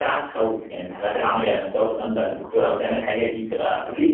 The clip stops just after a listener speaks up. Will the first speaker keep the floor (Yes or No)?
No